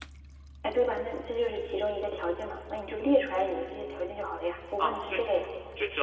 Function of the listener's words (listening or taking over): taking over